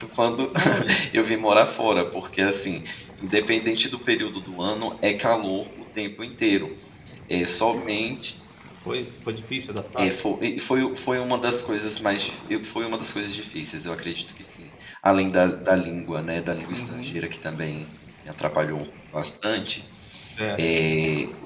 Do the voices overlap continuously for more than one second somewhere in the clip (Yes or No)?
No